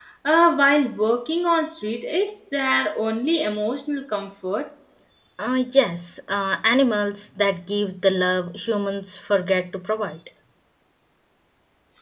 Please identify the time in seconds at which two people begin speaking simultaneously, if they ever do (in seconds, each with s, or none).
none